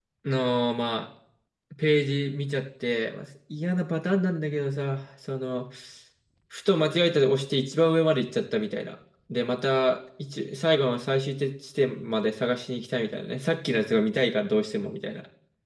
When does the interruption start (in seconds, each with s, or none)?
none